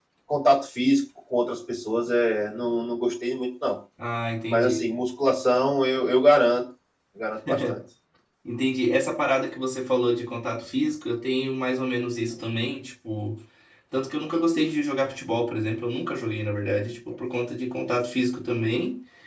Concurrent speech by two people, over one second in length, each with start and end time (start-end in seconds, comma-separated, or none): none